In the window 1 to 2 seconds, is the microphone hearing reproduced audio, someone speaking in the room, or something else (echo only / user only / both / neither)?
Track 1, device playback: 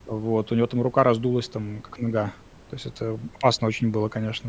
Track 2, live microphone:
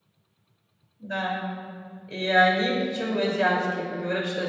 user only